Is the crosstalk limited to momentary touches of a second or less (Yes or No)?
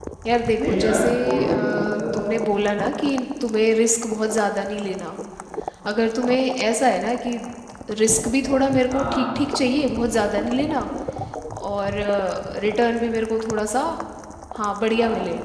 No